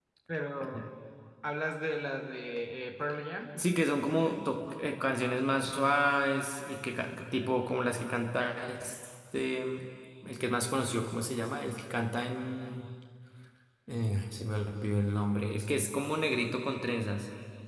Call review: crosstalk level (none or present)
none